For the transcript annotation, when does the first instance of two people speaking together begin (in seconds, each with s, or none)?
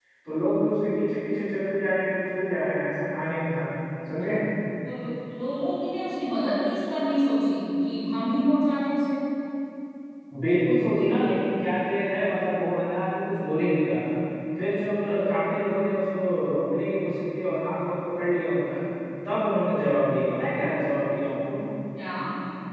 none